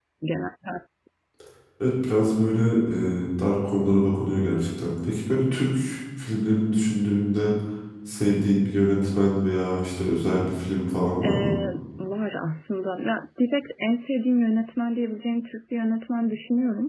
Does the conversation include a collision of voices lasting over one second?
No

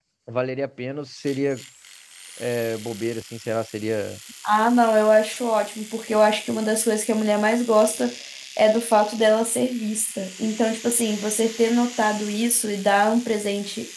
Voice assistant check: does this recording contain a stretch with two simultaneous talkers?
No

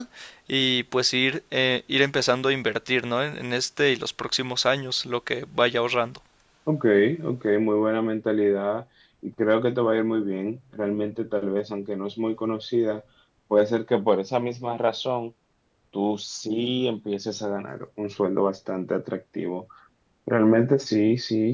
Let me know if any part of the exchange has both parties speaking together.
No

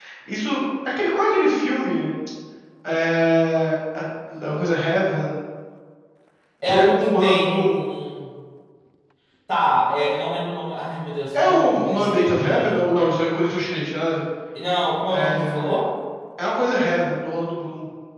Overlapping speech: Yes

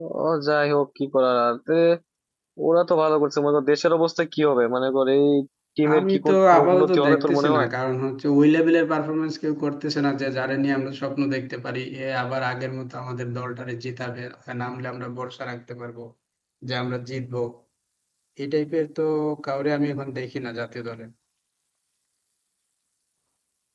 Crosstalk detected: Yes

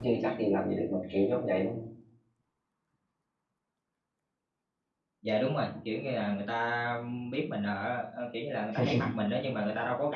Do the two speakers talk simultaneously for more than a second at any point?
No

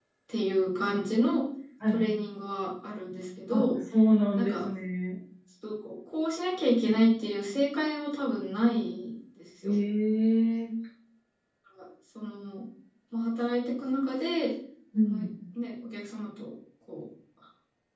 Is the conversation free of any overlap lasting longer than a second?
Yes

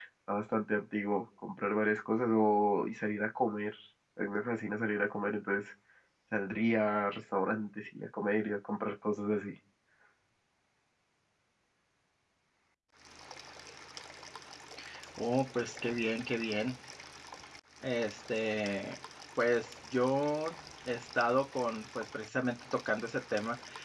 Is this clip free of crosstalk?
Yes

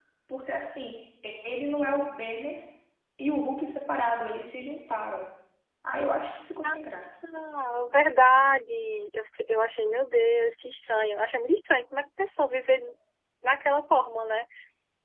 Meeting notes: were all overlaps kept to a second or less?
Yes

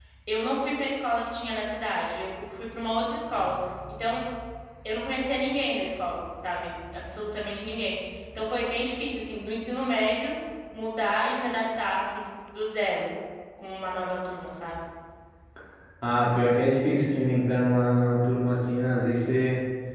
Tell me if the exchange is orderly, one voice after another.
Yes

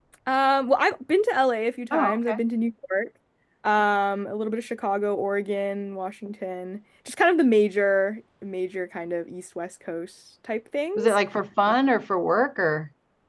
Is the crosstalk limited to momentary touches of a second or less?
Yes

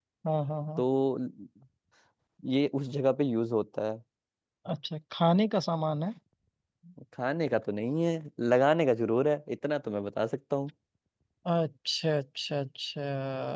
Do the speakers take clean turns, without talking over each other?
Yes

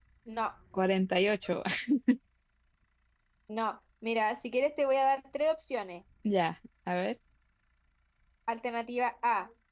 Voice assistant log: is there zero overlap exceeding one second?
Yes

